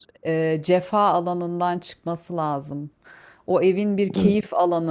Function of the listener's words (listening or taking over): listening